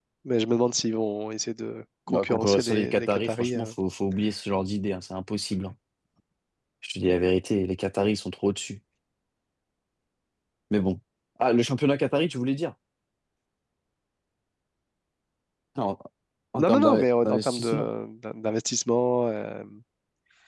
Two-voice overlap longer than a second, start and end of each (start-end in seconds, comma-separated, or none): 2.1-3.7, 16.6-17.9